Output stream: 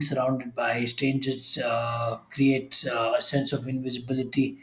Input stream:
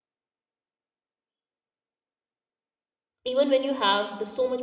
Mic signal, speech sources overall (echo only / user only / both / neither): user only